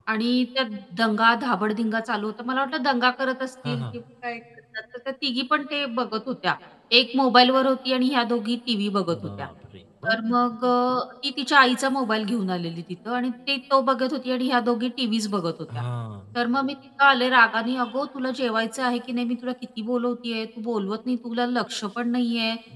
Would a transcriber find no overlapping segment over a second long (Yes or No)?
Yes